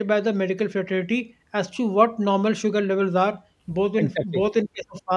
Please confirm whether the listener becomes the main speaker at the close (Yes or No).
No